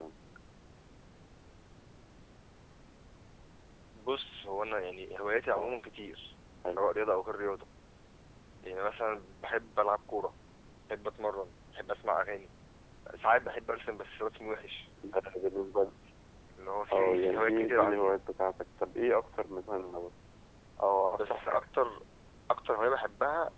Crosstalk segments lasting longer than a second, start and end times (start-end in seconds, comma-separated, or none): 16.9-18.1